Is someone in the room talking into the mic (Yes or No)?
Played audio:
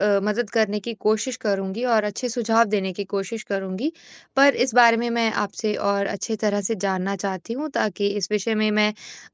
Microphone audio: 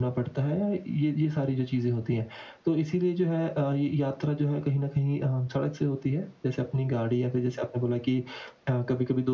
Yes